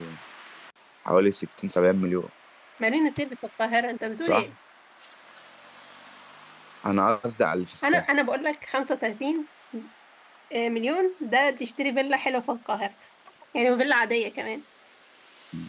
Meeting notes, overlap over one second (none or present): none